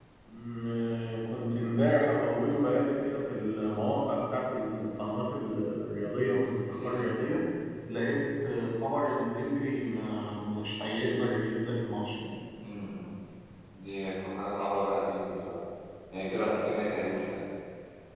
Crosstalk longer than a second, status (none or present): none